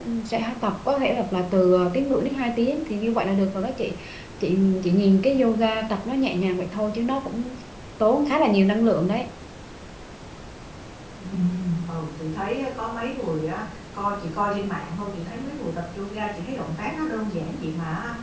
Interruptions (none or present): none